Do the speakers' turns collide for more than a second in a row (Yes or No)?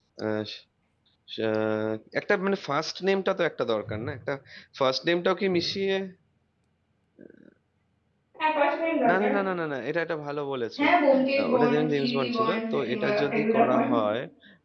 Yes